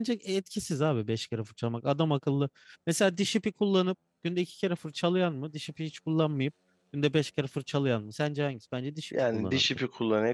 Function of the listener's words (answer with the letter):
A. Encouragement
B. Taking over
B